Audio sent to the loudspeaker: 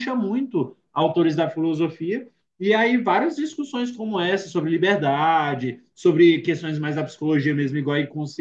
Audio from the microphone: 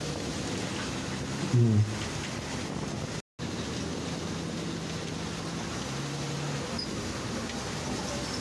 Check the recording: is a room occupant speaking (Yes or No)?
Yes